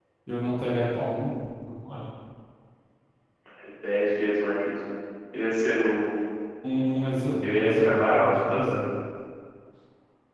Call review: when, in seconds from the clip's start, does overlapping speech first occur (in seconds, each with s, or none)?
7.4 s